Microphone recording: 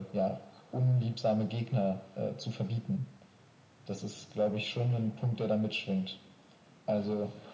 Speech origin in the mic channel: echo only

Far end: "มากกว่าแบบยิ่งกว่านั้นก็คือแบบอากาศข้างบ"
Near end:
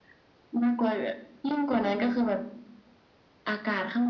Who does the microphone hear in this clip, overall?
echo only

